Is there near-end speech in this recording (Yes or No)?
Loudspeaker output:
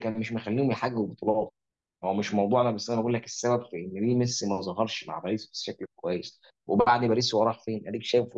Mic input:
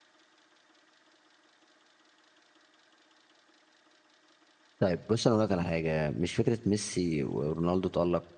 Yes